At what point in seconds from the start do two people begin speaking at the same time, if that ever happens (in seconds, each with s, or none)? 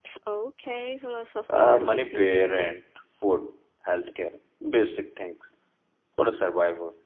1.5 s